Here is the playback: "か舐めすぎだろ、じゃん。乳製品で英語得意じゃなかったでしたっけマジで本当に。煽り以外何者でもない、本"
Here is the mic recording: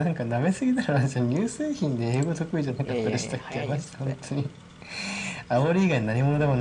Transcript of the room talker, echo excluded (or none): いやいやいや、早いよ、絶対。